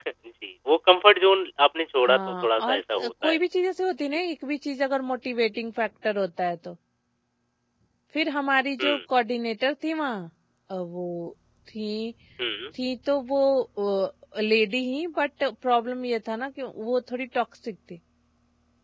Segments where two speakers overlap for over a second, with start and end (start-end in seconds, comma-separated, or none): 2.1-3.4